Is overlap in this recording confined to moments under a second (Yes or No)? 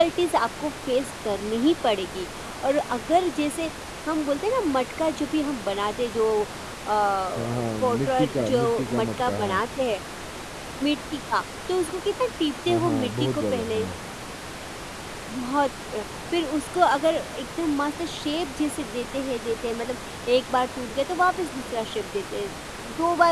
No